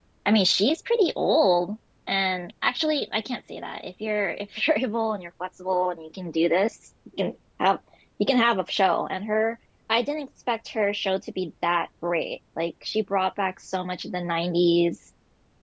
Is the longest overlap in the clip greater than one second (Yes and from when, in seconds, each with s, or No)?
No